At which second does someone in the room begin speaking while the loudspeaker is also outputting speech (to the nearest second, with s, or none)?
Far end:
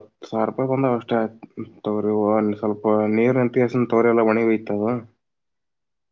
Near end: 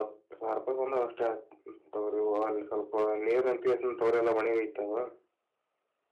none